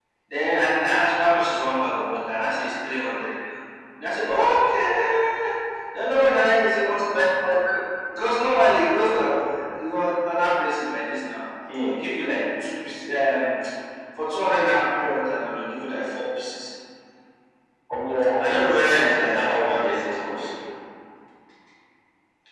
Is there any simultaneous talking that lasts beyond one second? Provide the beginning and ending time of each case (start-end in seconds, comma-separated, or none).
18.4-20.5